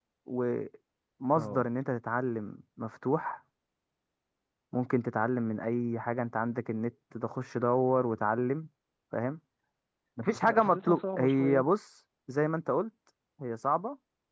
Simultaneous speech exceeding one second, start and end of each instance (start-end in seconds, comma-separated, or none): 10.3-11.6